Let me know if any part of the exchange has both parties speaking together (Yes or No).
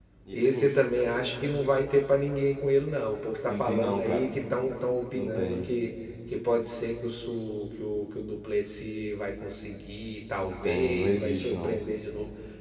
Yes